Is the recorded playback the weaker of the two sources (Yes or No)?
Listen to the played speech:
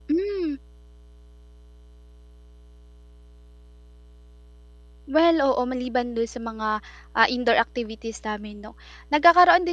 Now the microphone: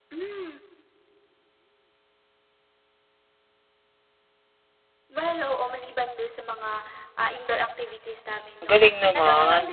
Yes